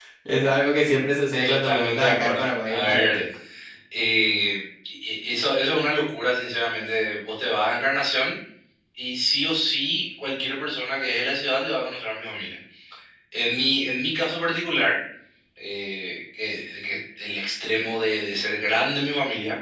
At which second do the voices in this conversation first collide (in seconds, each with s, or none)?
1.4 s